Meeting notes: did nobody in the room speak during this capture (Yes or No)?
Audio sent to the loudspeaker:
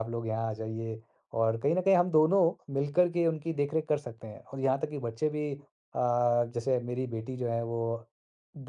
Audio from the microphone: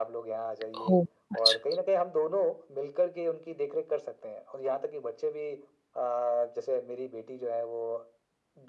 No